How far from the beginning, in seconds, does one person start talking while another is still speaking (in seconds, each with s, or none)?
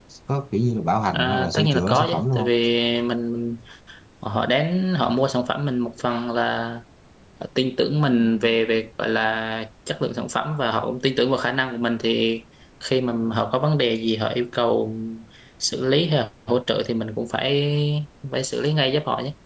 1.1 s